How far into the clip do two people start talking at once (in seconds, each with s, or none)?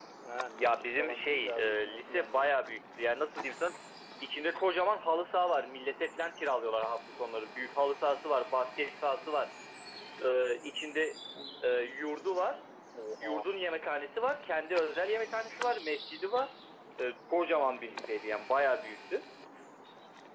0.6 s